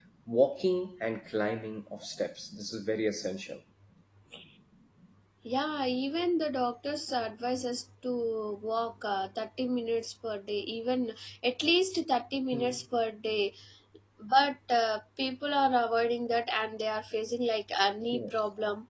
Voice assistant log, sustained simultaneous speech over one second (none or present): none